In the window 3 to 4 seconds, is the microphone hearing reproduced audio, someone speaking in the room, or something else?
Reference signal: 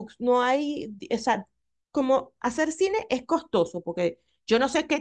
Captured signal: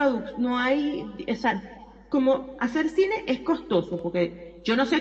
echo only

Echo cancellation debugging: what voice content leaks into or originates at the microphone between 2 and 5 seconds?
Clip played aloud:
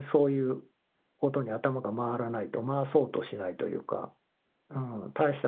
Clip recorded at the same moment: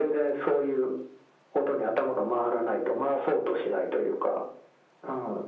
echo only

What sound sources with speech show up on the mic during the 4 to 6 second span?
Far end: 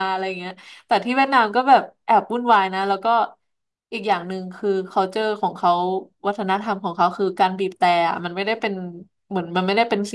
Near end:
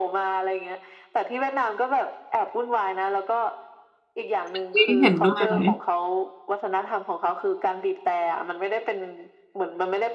both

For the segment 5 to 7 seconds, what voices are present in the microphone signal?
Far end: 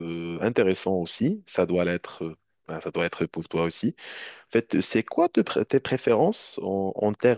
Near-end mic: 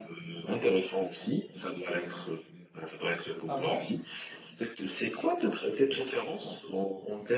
echo only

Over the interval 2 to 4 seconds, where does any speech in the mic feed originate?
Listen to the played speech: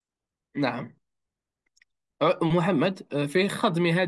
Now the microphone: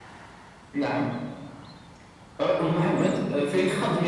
echo only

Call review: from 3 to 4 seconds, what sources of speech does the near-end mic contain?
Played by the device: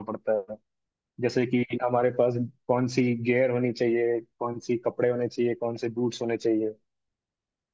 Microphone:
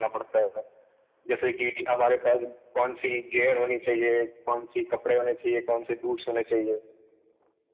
echo only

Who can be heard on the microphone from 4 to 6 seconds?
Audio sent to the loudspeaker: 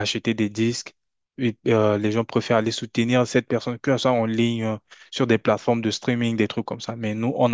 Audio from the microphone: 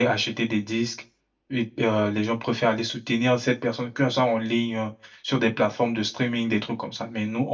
echo only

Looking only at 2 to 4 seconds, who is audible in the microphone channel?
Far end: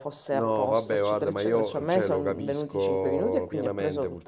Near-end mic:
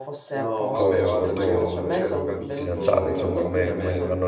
both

